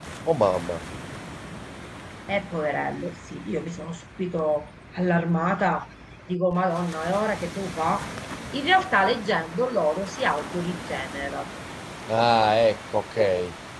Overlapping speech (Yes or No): No